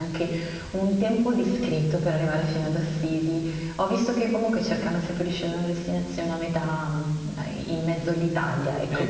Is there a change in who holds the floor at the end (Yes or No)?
Yes